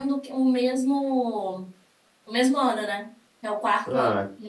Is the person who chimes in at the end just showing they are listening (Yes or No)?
No